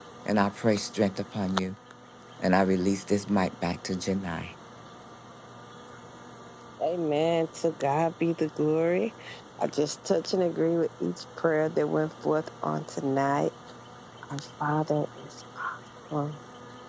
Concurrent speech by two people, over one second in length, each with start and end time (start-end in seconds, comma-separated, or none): none